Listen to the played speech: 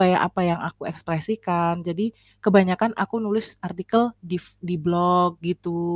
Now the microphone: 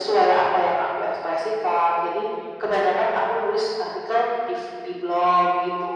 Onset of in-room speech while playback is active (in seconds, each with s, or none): none